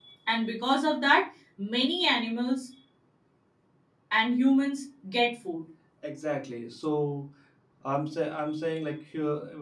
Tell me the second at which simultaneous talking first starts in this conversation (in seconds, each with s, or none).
none